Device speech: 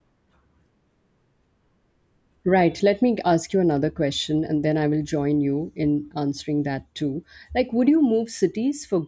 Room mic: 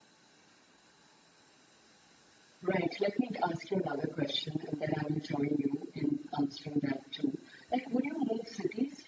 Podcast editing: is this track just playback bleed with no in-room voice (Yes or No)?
Yes